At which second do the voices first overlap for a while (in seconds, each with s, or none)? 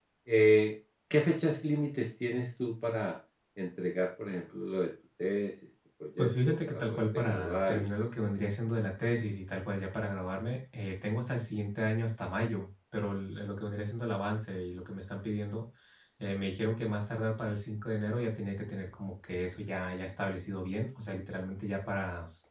6.2 s